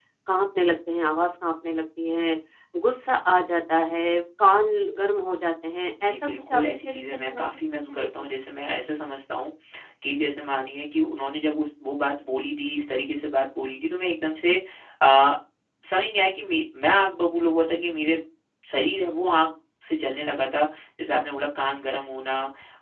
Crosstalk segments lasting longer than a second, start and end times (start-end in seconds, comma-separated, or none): 6.1-8.3